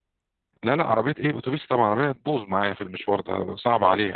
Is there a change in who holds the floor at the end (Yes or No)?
Yes